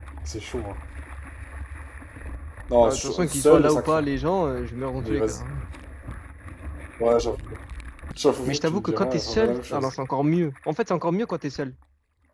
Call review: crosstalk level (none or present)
present